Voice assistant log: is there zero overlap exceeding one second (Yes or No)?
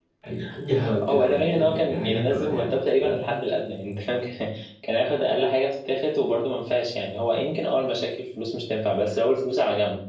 No